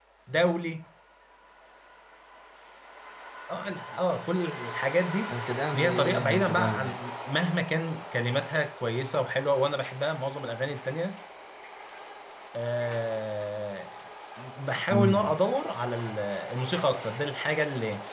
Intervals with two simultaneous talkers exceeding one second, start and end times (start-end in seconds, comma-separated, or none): 5.7-7.0